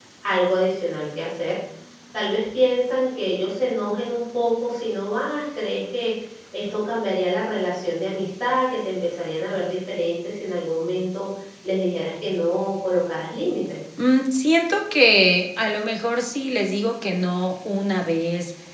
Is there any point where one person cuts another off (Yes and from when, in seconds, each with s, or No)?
No